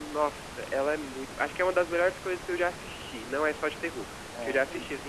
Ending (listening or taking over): listening